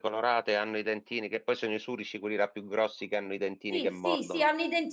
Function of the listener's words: taking over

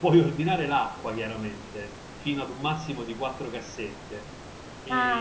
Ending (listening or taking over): taking over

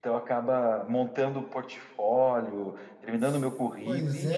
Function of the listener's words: taking over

